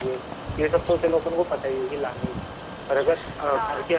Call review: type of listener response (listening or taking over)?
listening